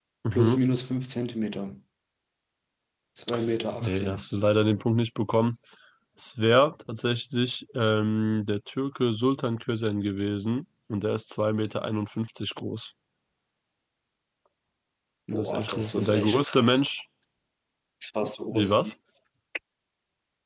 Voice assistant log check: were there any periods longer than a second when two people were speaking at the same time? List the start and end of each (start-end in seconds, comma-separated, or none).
15.3-16.8